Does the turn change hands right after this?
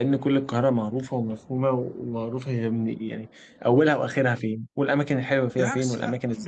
Yes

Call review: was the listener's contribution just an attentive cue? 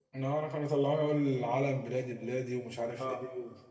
No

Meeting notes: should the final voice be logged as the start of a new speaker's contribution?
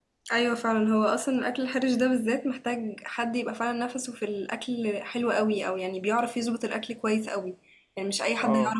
No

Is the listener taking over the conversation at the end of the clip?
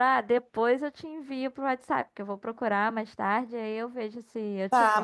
Yes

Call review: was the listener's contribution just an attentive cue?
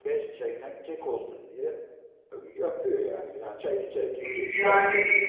No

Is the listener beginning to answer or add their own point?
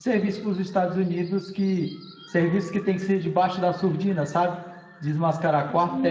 No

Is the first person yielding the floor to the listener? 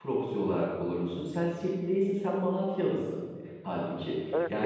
Yes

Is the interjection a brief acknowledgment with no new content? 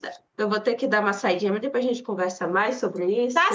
No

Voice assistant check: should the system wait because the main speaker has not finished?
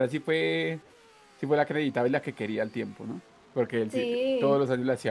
Yes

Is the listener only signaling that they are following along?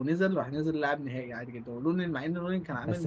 No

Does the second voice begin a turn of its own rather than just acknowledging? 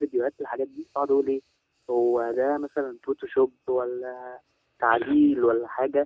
No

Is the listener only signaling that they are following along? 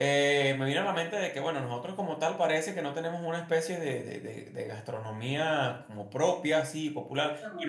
Yes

